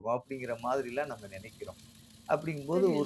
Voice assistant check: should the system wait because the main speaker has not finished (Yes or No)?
Yes